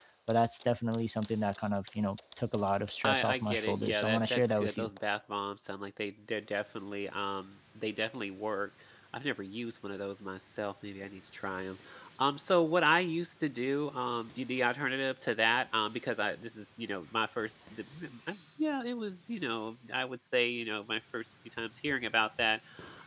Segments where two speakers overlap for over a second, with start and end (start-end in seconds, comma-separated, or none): 3.0-4.9